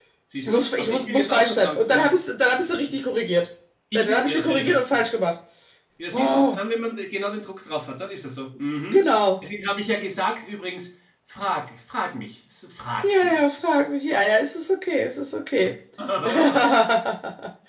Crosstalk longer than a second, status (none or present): present